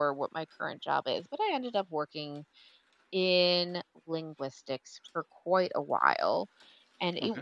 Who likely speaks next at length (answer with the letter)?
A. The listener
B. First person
B